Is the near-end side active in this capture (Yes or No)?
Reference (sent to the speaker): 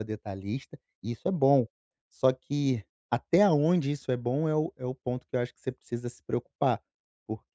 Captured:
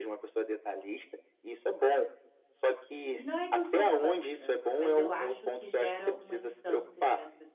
Yes